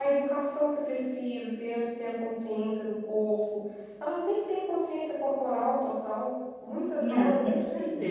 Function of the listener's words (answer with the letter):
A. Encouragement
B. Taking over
B